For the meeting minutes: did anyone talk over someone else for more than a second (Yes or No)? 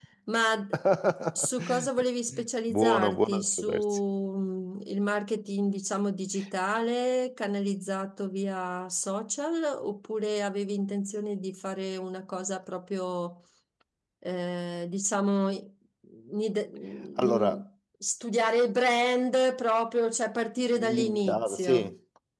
Yes